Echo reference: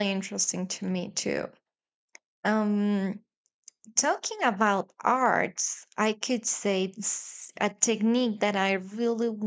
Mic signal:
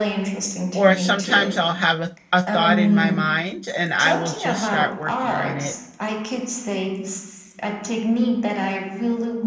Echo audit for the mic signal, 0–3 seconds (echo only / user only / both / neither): both